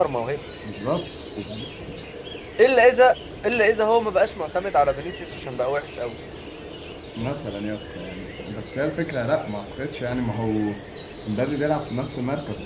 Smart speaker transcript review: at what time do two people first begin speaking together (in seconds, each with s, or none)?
none